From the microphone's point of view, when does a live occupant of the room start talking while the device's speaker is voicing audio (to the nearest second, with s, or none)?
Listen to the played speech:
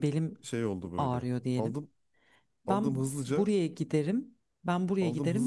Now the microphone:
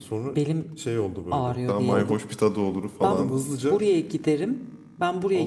2 s